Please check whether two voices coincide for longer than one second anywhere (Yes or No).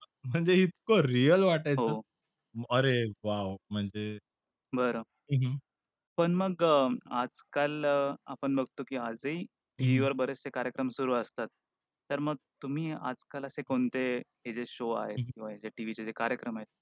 No